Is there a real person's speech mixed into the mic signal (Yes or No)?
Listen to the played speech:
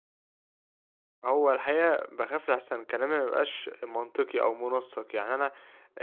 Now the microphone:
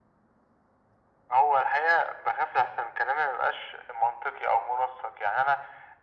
No